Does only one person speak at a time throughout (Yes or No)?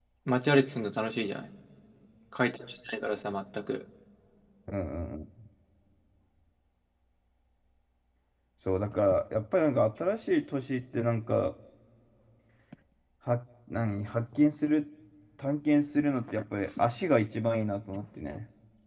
Yes